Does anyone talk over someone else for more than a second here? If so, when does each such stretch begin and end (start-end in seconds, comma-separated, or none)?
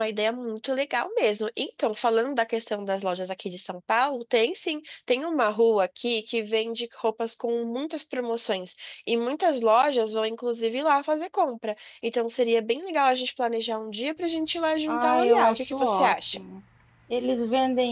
14.9-16.4